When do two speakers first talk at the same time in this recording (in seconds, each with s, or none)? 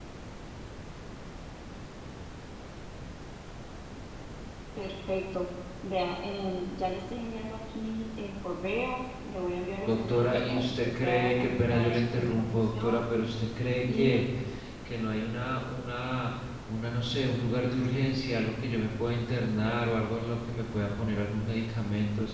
9.8 s